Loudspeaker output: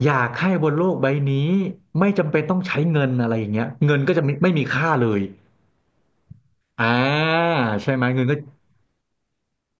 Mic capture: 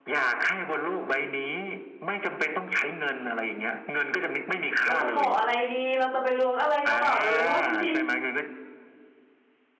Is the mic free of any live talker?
No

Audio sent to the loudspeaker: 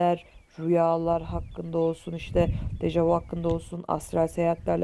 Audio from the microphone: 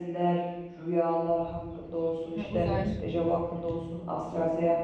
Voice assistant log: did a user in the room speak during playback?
Yes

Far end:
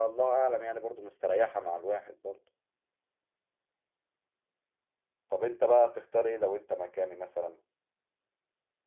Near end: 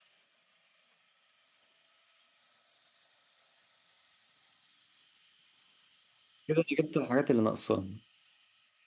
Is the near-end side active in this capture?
Yes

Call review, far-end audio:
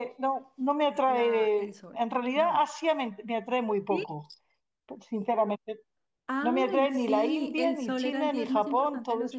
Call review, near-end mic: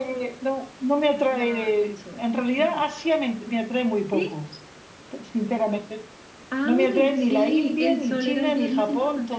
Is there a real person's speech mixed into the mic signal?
No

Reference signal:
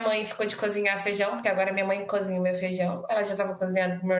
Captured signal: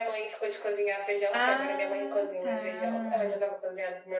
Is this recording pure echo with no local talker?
No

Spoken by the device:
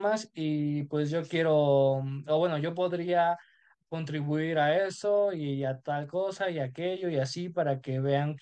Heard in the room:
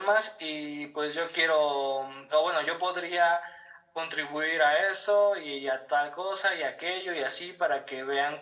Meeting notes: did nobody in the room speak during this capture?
Yes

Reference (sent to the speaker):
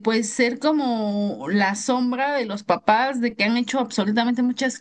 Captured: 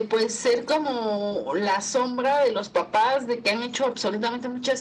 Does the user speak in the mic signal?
No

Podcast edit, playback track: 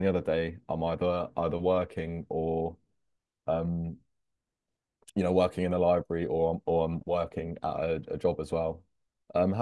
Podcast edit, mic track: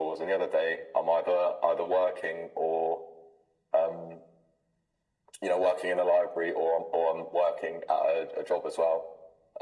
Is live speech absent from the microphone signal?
Yes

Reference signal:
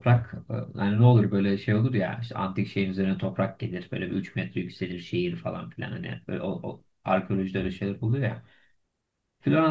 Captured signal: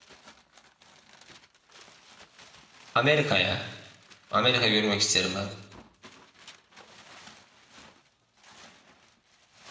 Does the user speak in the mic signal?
Yes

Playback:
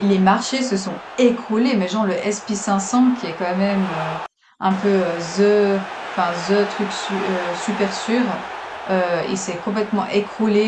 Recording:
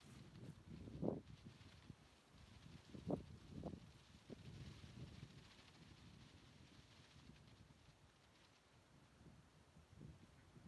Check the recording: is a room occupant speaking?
No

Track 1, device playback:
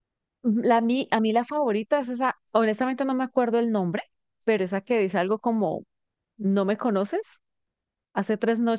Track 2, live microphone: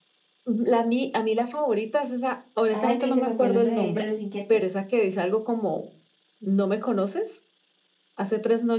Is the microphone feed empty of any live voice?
No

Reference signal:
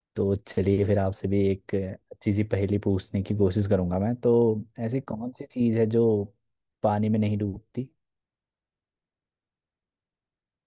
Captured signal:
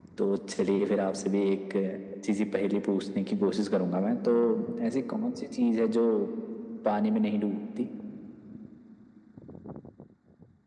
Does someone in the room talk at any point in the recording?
No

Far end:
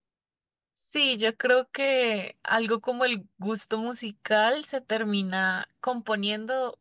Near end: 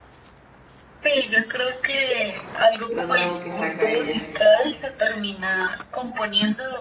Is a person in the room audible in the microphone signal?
Yes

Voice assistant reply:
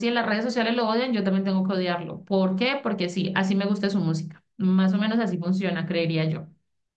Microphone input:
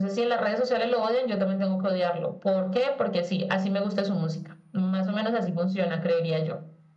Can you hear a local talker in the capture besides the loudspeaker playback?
No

